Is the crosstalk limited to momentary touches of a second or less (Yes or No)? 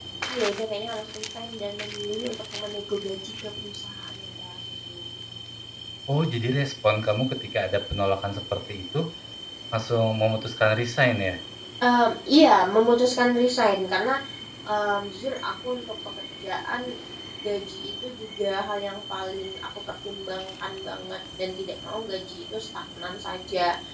Yes